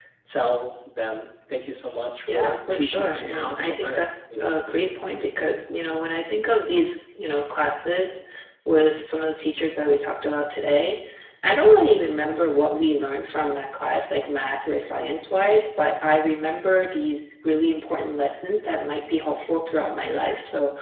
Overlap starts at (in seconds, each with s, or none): 2.3 s